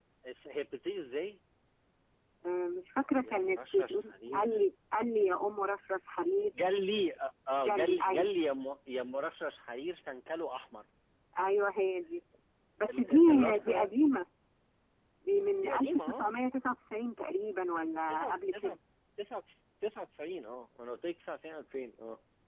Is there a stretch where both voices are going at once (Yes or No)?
Yes